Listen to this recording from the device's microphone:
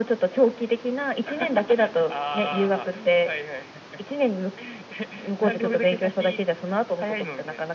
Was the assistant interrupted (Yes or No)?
No